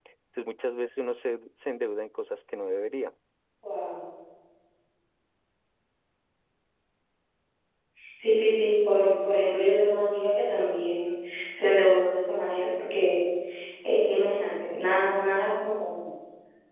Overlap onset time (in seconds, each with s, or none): none